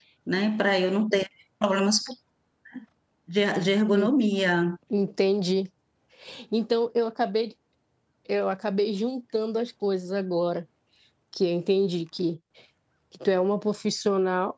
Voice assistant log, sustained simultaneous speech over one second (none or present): none